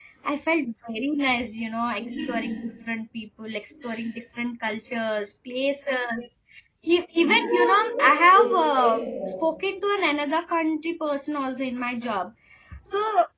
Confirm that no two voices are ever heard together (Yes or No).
No